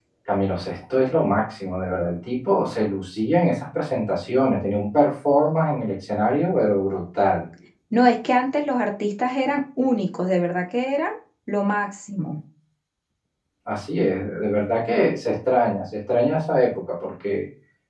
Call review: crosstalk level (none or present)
none